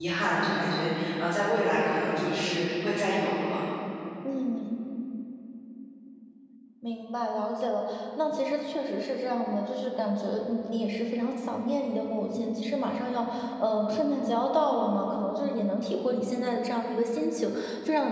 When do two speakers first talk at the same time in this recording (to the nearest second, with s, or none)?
none